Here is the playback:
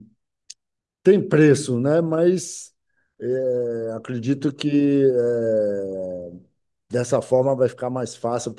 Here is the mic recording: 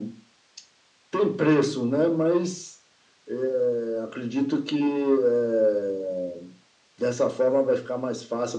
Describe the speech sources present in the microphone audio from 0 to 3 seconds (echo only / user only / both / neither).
echo only